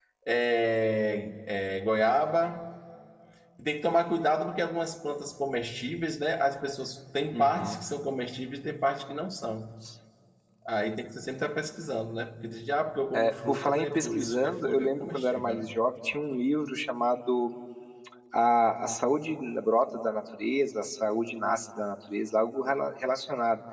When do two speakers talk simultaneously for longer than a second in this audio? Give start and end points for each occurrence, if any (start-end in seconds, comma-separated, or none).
13.1-15.7